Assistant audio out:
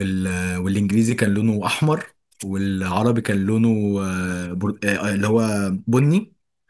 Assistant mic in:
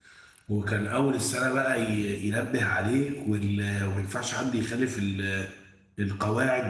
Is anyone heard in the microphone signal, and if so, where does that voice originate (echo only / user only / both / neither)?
user only